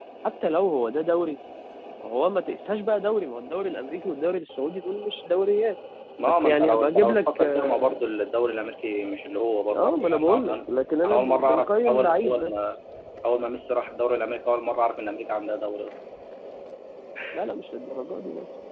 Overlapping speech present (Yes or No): Yes